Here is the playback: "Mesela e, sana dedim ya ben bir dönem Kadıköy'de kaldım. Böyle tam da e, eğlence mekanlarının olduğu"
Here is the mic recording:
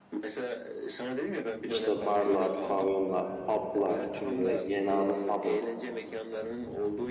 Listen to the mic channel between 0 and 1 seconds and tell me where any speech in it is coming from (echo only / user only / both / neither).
echo only